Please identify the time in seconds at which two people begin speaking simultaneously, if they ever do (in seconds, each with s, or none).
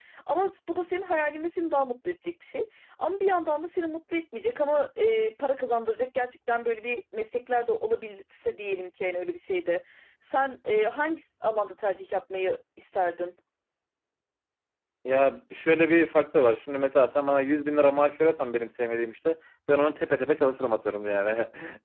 none